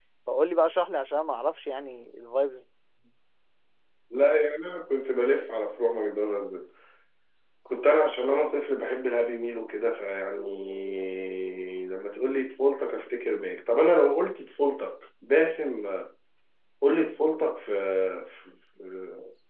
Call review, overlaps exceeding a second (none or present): none